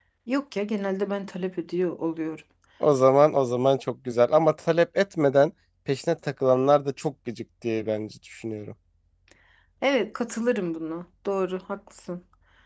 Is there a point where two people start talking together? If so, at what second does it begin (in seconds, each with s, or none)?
none